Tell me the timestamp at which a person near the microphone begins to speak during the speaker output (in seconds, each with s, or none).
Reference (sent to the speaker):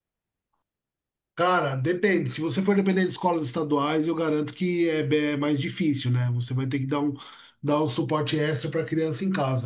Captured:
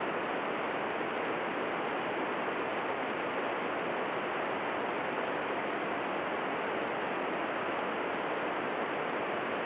none